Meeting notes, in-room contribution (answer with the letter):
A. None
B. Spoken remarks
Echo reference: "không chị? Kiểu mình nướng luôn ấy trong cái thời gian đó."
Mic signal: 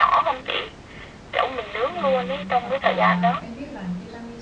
B